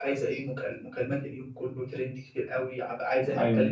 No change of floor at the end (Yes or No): No